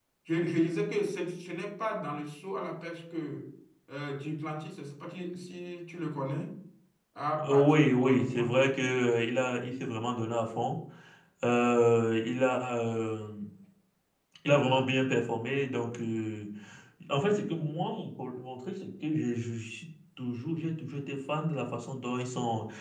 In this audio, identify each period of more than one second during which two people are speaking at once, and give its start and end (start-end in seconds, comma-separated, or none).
7.4-8.8